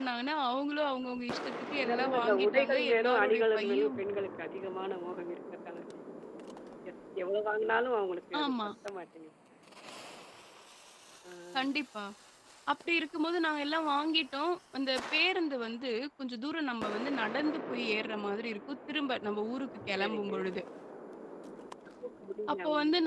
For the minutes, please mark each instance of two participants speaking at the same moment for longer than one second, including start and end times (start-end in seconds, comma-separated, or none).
1.8-4.0